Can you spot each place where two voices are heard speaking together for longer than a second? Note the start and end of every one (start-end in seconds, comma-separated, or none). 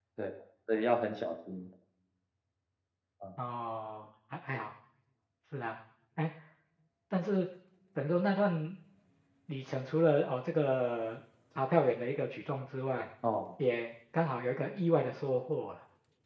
none